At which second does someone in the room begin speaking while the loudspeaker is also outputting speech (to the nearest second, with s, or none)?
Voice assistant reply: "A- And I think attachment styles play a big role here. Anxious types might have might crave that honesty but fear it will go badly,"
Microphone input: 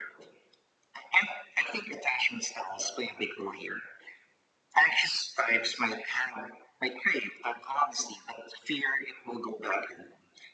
none